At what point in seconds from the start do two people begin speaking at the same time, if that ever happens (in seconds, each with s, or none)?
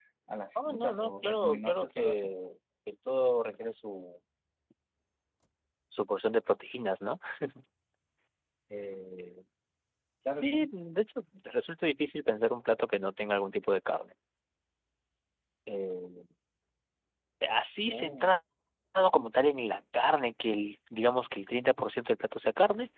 0.6 s